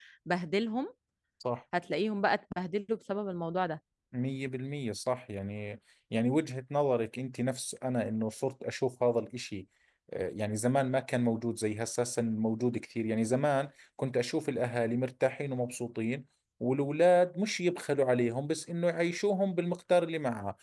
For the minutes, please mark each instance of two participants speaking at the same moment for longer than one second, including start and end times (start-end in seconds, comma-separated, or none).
none